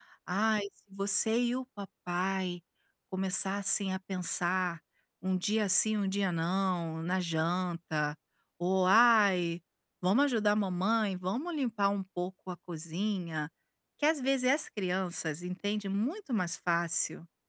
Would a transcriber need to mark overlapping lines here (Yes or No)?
No